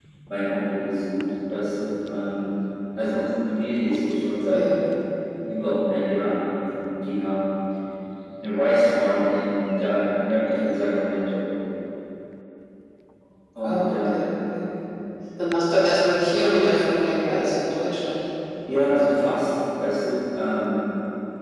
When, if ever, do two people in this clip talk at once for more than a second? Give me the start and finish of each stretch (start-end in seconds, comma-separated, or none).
none